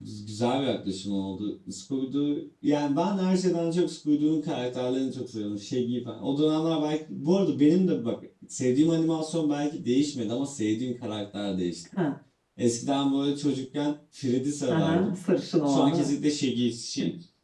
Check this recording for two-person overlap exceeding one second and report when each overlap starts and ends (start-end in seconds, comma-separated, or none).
none